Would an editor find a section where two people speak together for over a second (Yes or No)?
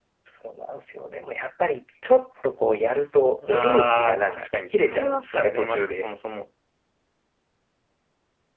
Yes